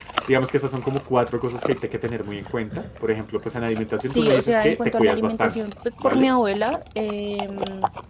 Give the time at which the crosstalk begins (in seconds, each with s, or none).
4.1 s